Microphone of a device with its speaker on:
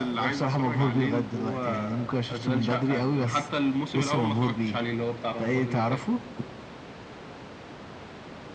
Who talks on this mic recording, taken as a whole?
echo only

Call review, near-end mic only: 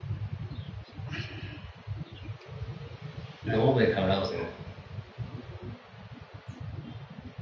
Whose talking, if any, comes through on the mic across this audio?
user only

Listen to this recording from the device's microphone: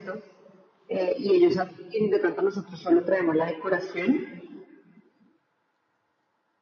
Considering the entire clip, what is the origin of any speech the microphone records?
echo only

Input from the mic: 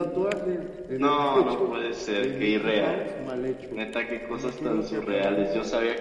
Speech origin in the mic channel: both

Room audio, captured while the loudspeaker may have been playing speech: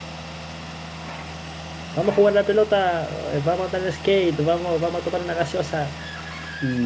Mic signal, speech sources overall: user only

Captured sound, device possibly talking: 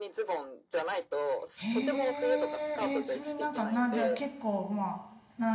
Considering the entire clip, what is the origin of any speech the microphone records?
both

